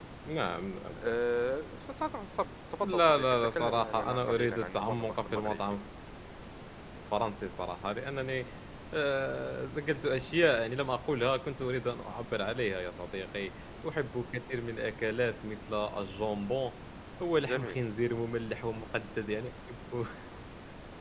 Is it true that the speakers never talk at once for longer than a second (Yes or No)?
No